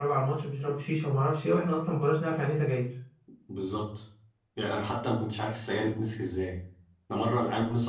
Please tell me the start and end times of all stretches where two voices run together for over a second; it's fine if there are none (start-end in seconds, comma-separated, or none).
none